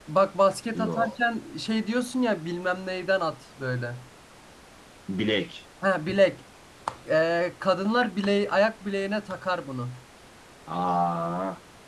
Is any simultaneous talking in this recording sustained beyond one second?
No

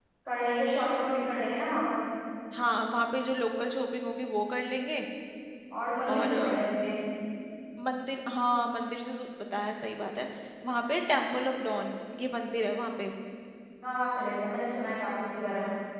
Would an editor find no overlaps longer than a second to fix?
Yes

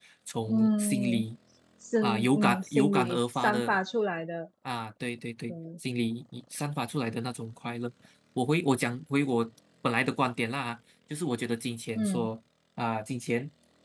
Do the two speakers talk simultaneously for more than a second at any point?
Yes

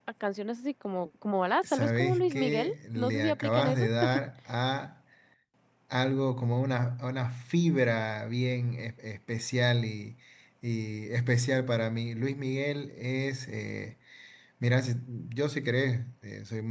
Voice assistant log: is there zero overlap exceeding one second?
No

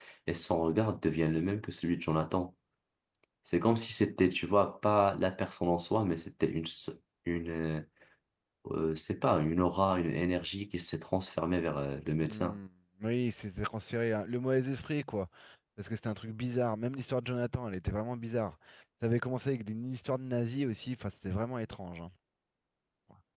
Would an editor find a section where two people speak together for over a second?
No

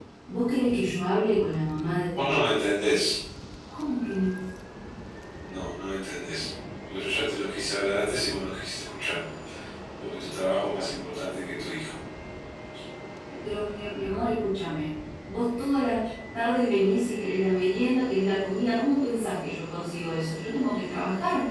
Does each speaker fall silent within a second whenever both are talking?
Yes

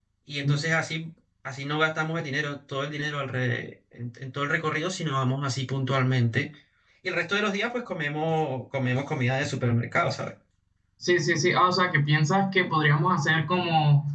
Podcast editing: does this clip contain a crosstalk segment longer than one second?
No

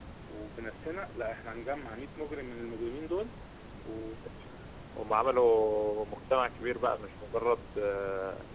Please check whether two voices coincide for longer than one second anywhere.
No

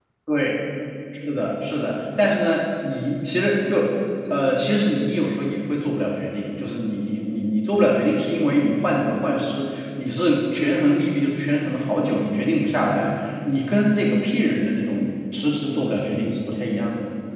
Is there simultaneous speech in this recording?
No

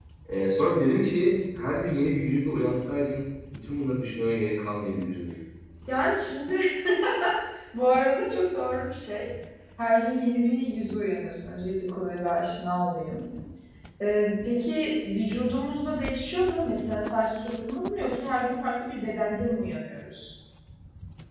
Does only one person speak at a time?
Yes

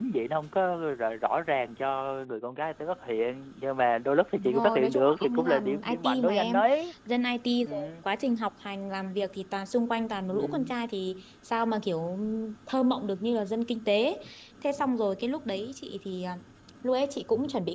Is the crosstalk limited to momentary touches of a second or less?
No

